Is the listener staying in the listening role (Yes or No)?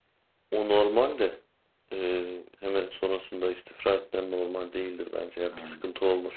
Yes